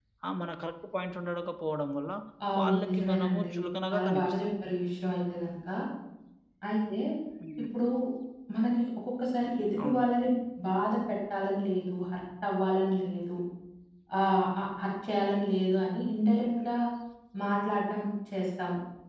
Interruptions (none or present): present